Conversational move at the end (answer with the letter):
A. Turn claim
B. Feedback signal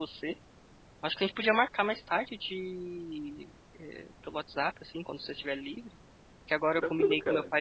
B